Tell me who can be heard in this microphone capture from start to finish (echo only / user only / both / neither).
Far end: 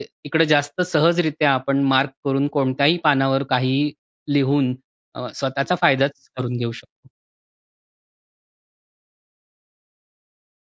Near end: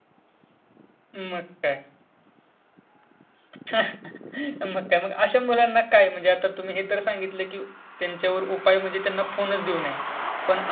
user only